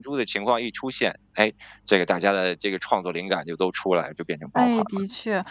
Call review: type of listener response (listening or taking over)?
taking over